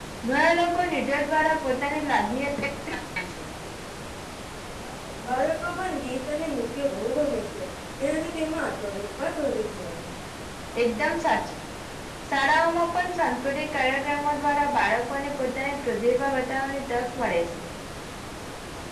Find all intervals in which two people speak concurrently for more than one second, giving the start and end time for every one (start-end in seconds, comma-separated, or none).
none